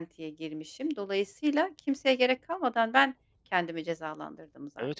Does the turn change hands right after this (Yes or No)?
Yes